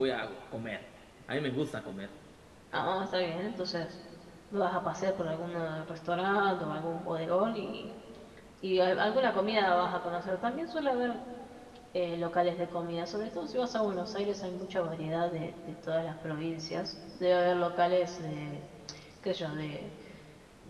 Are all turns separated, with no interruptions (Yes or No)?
Yes